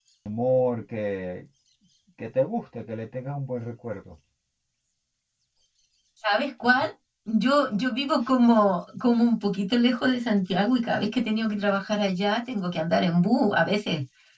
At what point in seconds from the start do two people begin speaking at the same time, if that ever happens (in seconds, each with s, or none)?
none